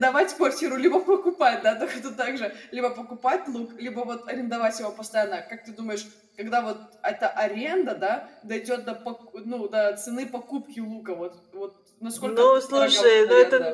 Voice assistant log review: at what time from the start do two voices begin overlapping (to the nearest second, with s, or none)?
12 s